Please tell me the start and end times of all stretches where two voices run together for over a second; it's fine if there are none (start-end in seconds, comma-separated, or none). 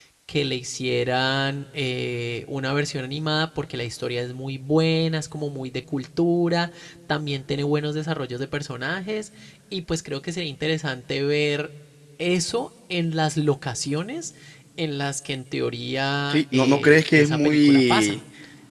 16.3-18.1